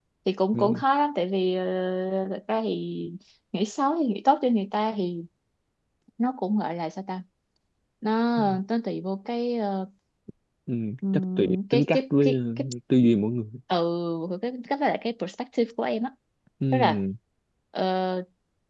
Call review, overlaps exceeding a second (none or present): present